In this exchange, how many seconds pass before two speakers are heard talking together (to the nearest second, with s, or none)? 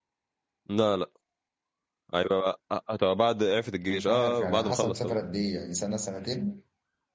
4 s